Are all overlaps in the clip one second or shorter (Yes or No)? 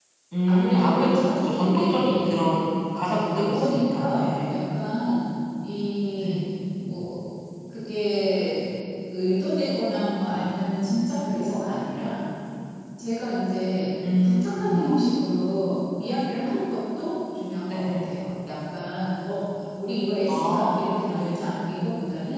No